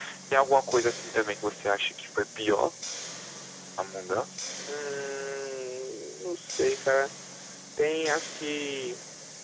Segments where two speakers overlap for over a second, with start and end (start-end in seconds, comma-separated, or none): none